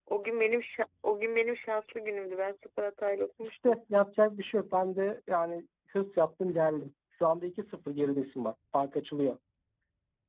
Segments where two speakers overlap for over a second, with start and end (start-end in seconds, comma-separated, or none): none